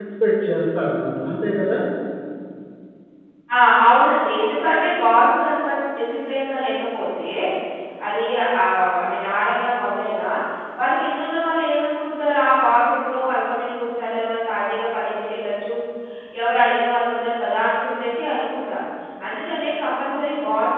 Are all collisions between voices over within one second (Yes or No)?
Yes